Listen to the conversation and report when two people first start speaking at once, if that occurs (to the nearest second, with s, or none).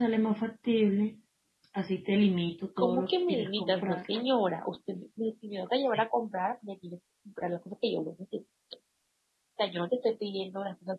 3 s